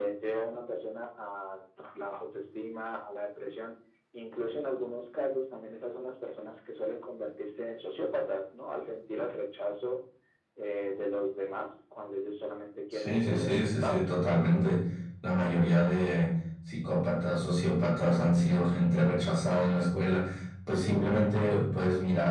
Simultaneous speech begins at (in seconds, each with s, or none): 12.9 s